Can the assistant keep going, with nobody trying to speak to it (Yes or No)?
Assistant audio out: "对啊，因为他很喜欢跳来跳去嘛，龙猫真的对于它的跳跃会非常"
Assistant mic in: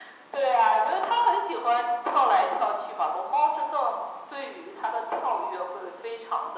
Yes